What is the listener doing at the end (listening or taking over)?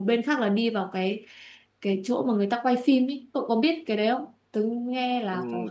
taking over